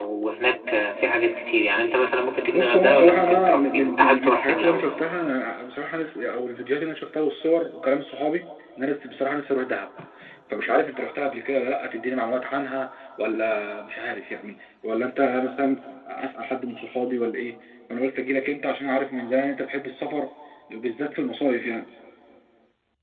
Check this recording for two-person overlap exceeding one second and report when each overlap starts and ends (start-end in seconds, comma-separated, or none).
2.5-4.9